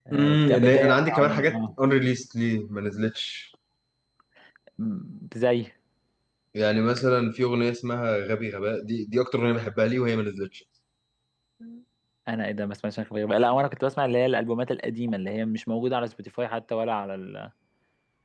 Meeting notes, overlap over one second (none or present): present